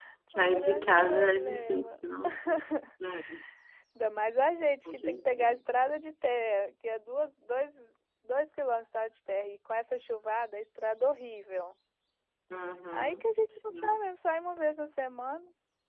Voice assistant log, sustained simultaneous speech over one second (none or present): present